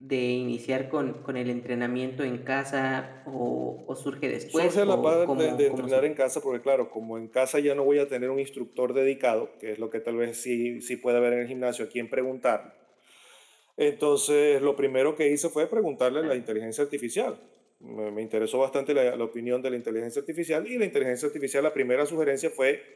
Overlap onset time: 4.5 s

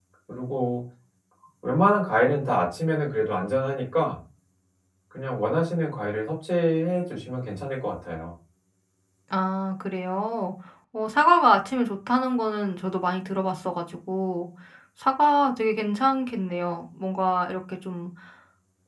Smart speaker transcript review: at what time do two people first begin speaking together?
none

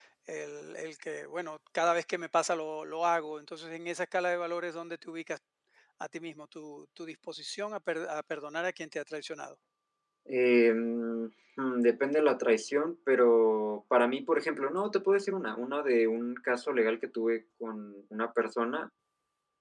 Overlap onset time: none

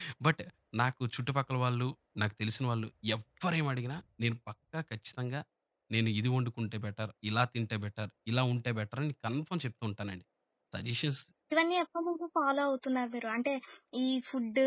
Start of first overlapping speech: none

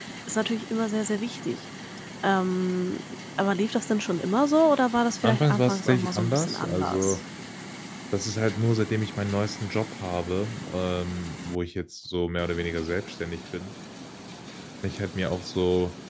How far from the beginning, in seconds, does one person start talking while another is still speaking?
5.2 s

